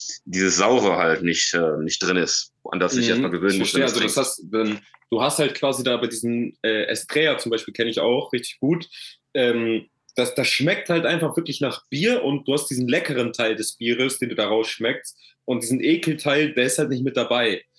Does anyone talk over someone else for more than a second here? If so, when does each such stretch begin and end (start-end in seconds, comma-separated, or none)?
2.9-4.3